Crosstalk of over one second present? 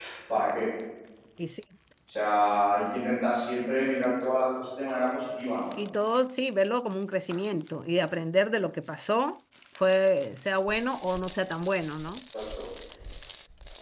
No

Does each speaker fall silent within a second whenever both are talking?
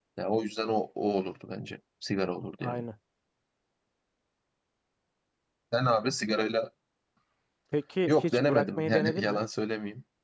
No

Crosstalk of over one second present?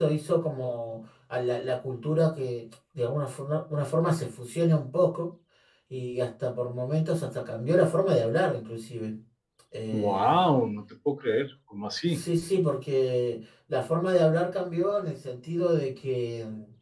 No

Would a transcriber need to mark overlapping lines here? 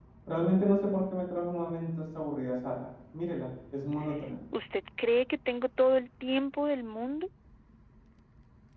No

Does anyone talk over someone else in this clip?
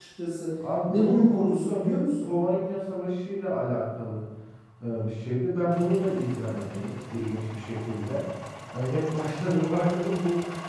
Yes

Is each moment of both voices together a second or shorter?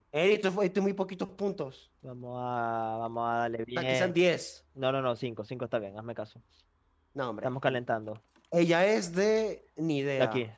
Yes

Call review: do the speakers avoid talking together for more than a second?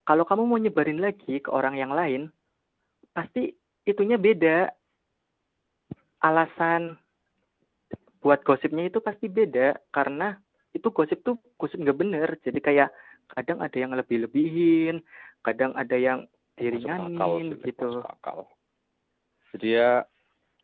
No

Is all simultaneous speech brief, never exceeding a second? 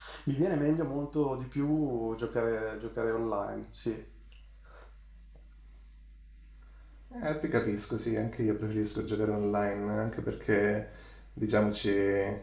Yes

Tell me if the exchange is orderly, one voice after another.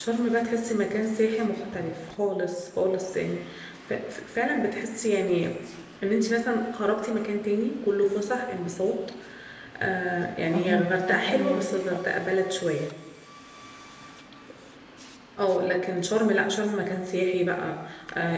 No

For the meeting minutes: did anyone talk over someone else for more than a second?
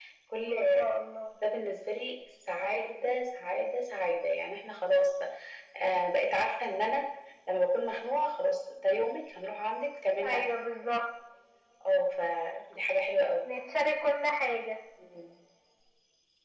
No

